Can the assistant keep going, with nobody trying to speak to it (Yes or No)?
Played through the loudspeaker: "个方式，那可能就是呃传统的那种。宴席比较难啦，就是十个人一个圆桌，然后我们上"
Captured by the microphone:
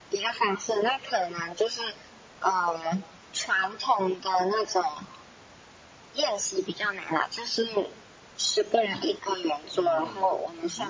No